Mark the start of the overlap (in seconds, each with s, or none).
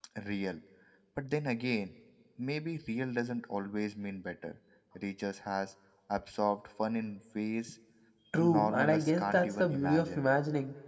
8.4 s